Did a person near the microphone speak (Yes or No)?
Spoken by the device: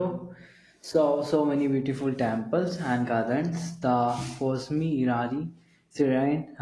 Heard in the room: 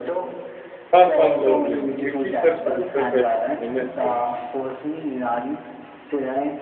Yes